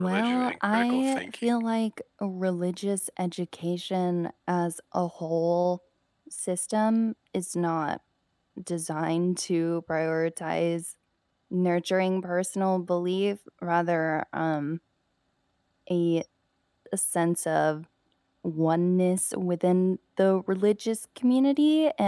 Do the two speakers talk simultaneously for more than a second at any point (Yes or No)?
Yes